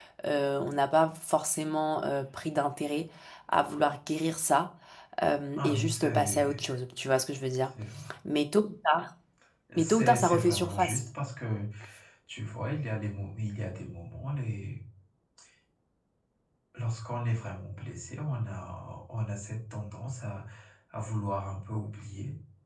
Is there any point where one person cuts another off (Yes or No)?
Yes